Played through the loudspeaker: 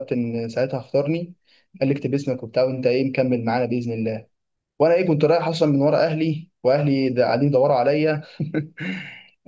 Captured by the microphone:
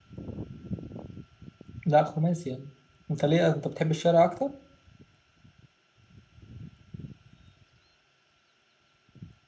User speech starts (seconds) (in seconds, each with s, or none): 1.8 s